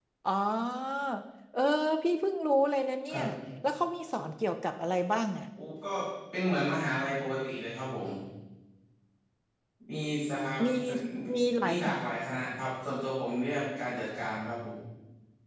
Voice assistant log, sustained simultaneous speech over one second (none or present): none